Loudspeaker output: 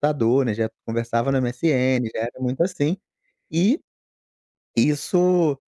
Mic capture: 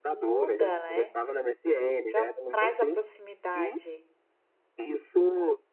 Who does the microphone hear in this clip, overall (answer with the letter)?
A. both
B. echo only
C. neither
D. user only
A